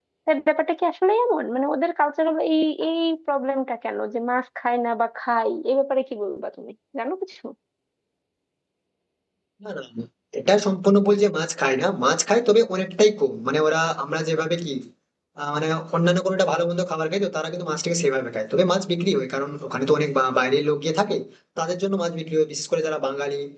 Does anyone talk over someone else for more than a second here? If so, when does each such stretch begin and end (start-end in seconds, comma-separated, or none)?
none